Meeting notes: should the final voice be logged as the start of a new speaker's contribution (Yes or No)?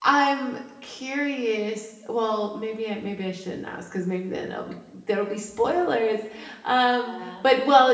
No